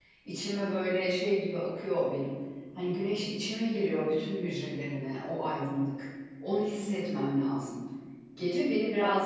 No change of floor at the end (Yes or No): Yes